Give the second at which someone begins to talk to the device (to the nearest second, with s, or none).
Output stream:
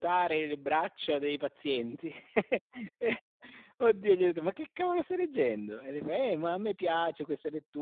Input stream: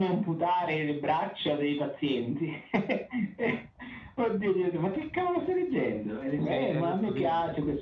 6 s